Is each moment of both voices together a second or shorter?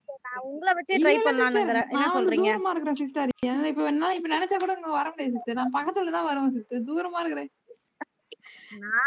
No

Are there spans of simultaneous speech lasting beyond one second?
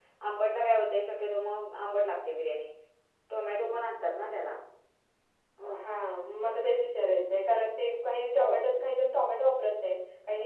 No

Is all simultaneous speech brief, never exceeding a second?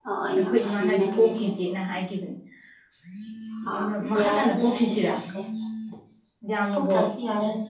No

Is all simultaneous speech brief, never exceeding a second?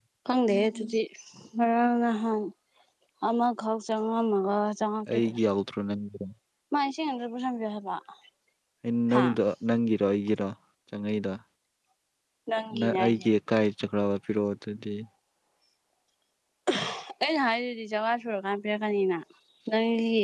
Yes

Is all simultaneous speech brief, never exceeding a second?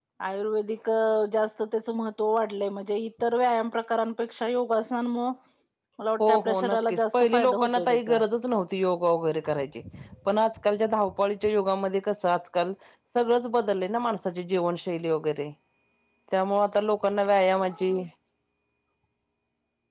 No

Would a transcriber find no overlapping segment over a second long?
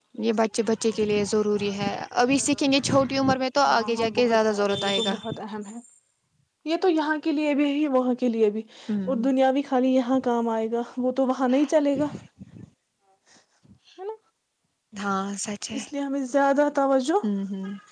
No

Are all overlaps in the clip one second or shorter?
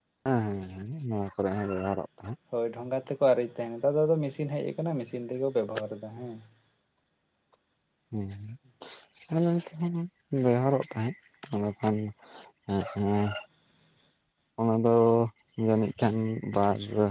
Yes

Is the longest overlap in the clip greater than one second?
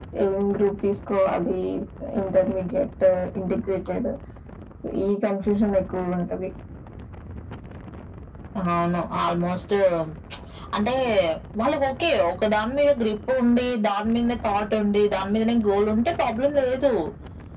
No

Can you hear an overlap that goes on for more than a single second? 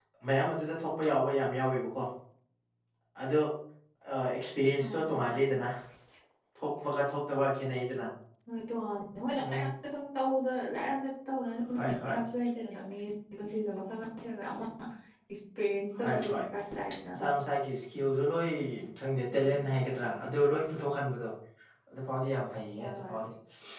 No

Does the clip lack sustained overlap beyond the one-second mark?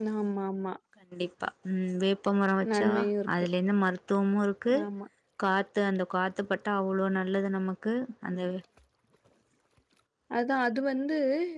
Yes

